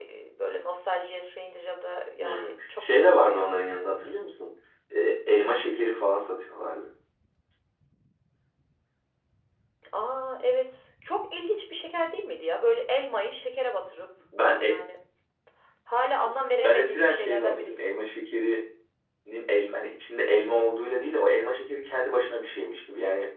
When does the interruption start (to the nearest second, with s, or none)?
2 s